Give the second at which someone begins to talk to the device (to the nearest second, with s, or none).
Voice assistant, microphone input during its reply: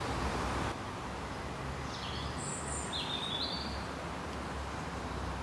none